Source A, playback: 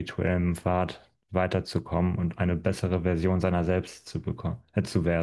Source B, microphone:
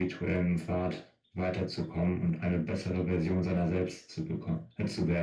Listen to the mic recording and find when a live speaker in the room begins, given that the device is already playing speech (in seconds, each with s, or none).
none